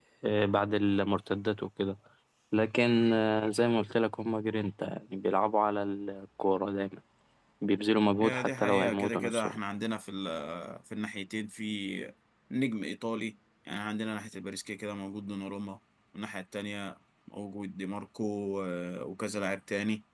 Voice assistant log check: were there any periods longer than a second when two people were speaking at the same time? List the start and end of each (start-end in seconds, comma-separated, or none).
8.2-9.6